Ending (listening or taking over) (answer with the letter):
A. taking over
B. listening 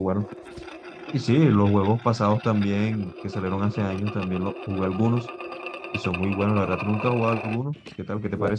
A